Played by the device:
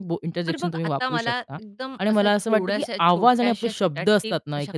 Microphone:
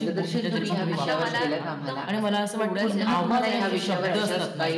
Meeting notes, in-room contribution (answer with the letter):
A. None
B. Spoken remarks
B